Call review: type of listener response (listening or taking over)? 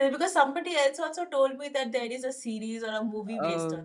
taking over